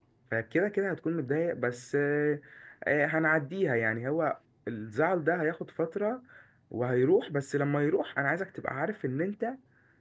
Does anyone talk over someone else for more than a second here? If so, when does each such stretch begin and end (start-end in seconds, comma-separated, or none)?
none